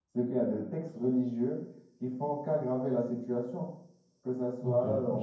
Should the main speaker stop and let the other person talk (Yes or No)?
Yes